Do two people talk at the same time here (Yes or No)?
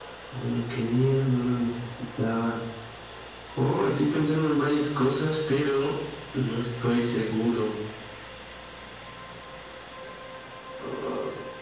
No